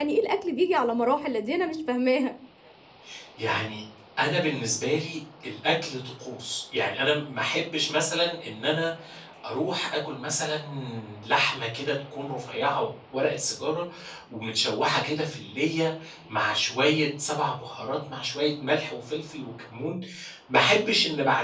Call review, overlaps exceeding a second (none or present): none